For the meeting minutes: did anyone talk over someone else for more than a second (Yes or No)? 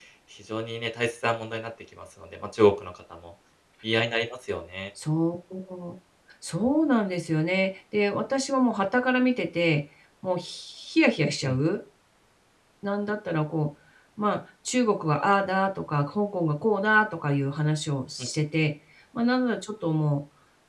No